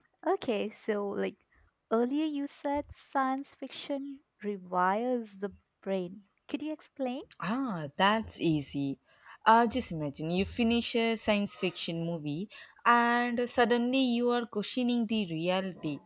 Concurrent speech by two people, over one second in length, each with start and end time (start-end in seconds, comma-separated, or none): none